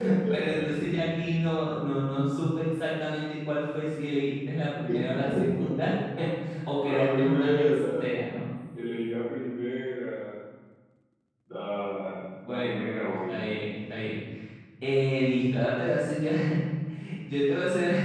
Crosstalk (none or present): present